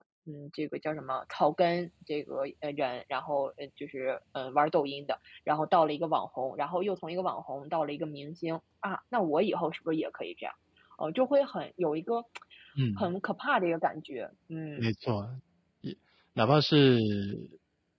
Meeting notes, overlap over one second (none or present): none